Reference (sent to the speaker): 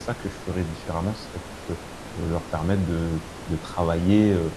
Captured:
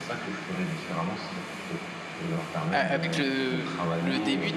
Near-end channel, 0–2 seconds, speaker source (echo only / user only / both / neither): echo only